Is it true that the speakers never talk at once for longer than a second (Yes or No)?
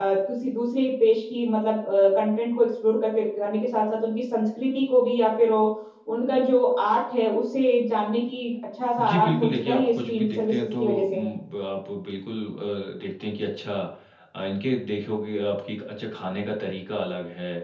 No